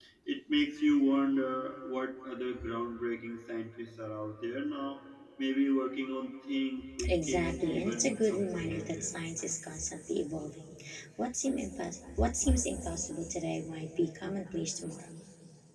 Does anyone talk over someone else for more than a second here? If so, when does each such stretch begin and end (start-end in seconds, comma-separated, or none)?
7.1-9.1